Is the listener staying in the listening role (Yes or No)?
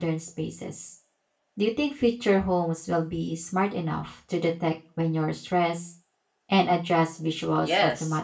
No